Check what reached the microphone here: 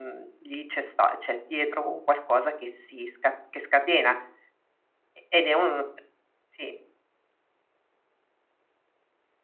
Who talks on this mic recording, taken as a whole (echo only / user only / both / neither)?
user only